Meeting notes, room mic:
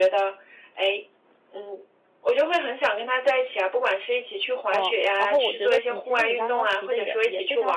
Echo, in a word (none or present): present